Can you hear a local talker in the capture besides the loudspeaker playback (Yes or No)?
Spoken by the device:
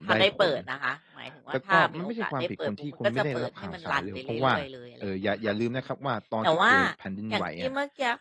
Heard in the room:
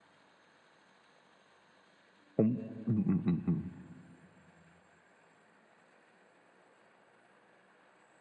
Yes